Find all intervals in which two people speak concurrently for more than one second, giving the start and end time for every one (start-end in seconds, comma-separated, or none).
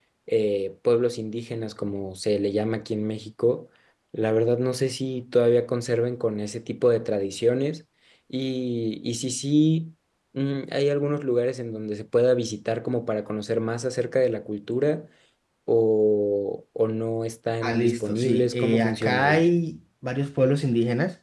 17.6-19.4